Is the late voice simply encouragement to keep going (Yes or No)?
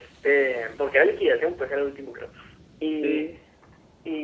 Yes